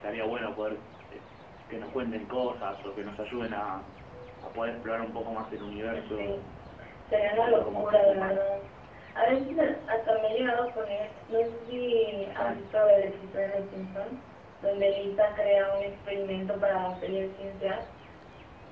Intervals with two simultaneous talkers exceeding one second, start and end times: 7.2-8.4

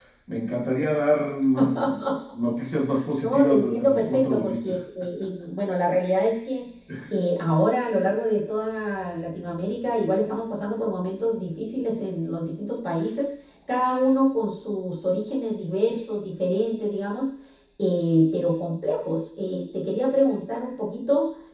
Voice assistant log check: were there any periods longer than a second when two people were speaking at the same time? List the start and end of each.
3.2-4.8

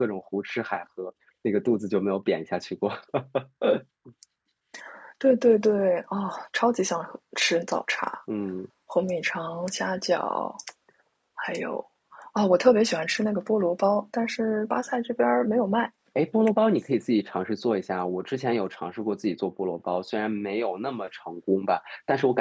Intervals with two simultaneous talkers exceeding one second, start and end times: none

